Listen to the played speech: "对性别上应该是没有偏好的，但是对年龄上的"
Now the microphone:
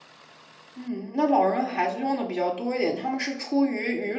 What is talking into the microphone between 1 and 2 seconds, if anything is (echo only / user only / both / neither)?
user only